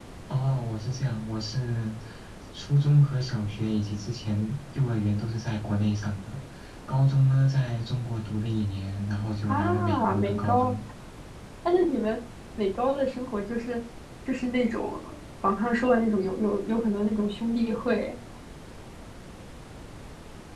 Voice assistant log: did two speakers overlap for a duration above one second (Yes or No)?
Yes